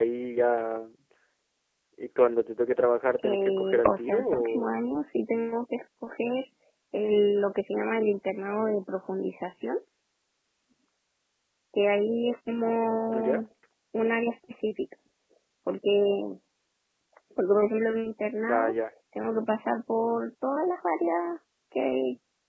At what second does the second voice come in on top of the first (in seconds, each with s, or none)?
3.2 s